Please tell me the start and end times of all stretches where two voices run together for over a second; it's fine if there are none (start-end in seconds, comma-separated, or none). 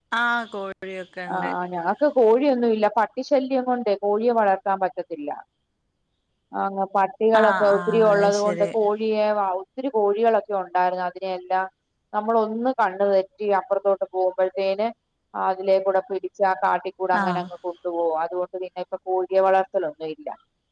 7.4-8.7